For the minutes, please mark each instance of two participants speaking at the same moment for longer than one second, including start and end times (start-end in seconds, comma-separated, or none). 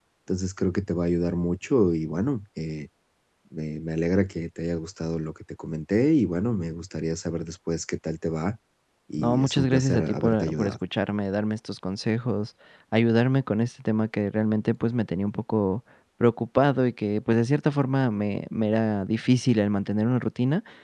9.2-10.8